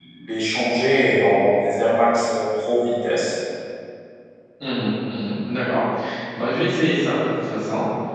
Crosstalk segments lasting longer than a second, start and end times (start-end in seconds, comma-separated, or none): none